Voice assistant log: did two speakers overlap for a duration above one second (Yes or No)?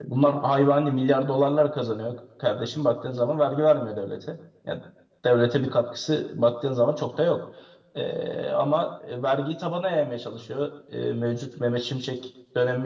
No